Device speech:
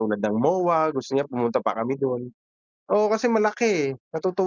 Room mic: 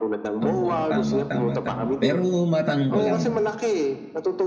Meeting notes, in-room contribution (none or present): present